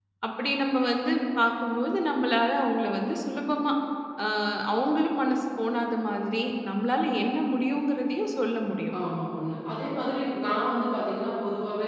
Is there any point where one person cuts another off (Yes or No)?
No